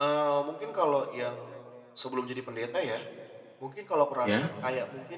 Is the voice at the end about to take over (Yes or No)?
No